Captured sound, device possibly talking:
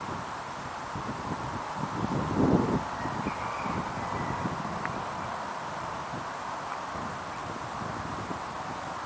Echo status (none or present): none